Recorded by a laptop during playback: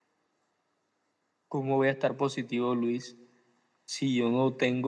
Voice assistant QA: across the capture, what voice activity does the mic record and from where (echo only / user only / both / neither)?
echo only